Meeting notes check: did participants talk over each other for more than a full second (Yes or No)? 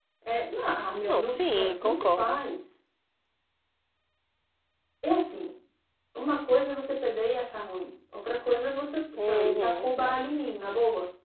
Yes